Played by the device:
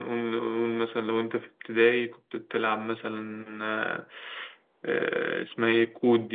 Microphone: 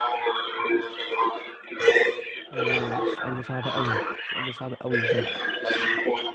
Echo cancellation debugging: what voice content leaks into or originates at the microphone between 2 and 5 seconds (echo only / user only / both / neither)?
both